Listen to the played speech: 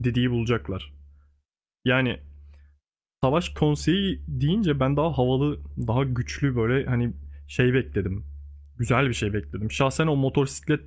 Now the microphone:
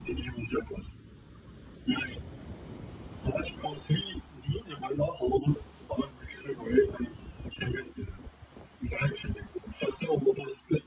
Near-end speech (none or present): none